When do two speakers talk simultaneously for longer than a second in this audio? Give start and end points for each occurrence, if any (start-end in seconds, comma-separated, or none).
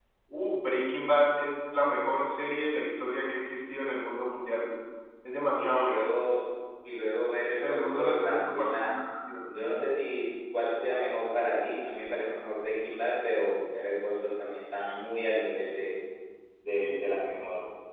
7.7-8.9